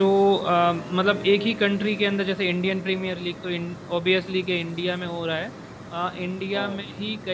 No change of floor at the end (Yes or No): Yes